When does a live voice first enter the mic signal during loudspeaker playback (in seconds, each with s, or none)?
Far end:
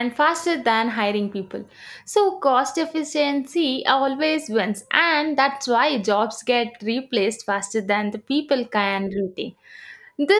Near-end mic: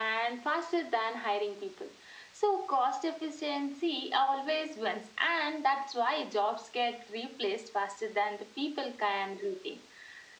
none